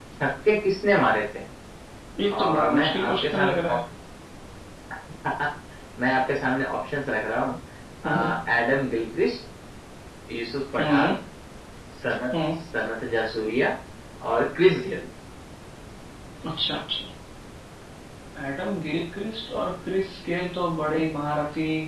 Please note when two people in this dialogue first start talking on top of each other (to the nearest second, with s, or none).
2 s